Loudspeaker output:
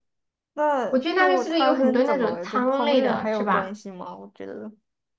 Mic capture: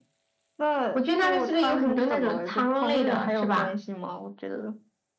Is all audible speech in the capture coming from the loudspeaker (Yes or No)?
Yes